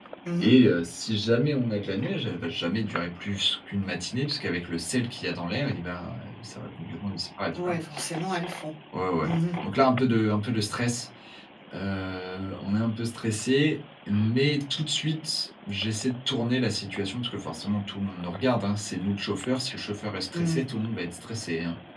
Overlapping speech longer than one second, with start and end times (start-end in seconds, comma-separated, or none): none